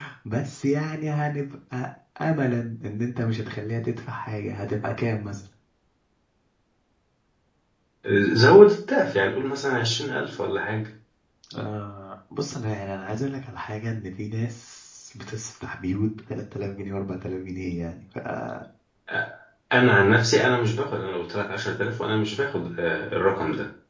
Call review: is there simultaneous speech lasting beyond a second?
No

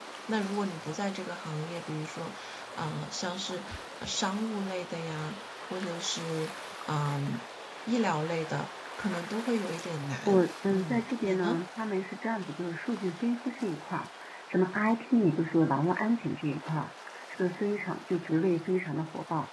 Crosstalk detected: Yes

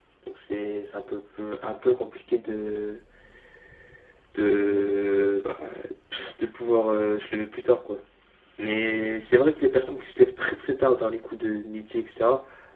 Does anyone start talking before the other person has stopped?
No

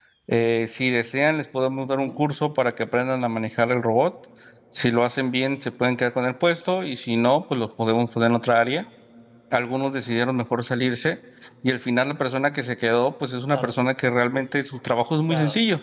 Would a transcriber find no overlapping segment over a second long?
Yes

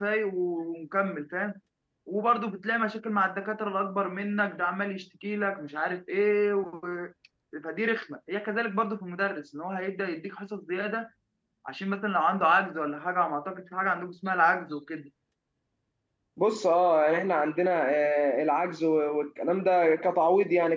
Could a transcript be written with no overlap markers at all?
Yes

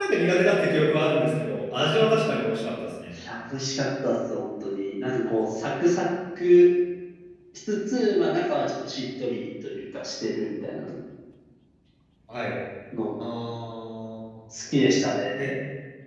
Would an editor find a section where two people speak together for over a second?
No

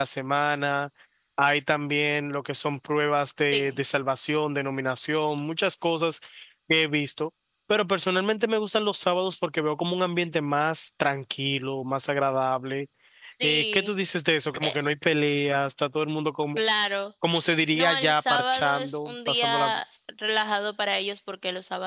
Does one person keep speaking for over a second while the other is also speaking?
Yes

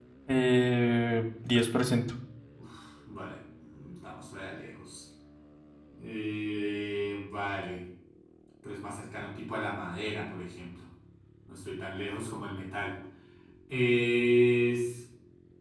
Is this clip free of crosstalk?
Yes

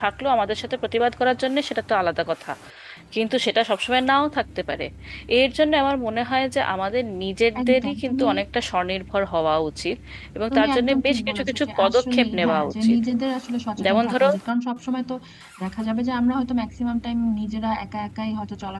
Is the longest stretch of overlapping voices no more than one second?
No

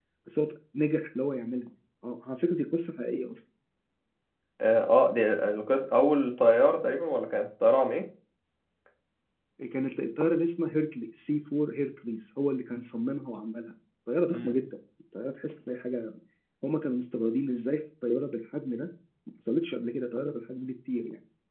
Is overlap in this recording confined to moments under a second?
Yes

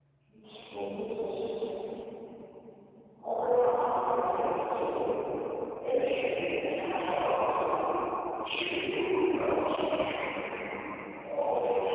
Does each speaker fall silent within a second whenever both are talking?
No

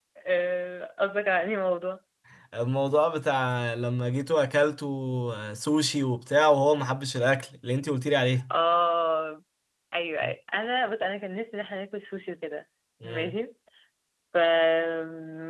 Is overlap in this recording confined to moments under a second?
Yes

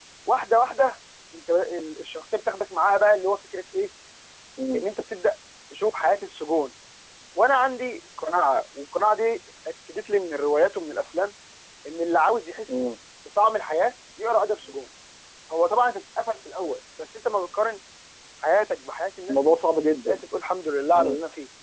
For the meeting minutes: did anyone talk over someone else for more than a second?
No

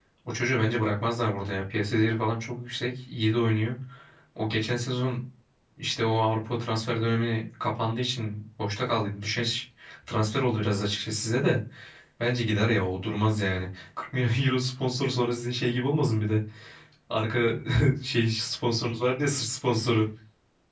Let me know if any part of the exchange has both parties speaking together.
No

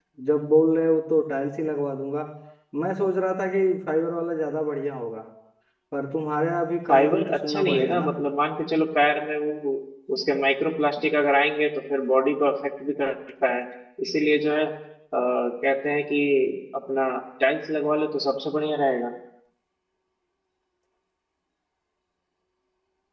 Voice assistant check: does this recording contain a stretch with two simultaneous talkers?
Yes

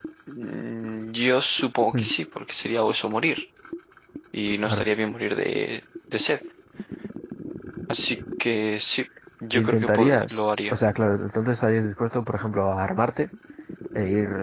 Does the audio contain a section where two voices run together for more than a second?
Yes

